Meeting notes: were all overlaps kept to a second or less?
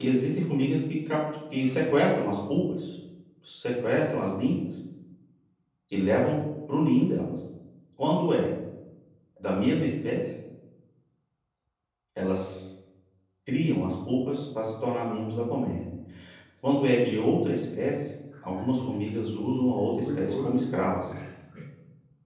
No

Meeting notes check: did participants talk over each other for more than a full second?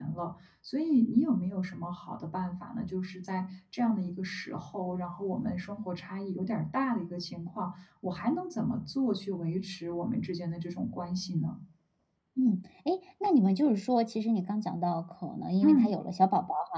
No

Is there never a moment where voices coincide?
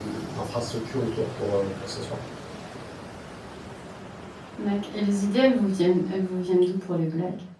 Yes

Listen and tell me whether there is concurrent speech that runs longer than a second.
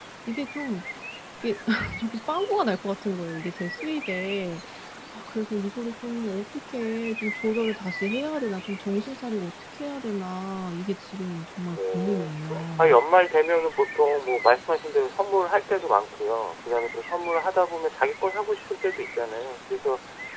No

